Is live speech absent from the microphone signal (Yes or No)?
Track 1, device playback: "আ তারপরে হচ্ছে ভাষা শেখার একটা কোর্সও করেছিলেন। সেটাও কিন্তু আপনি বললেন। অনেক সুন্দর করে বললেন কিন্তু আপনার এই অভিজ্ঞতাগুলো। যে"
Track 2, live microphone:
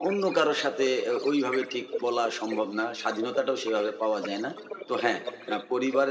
No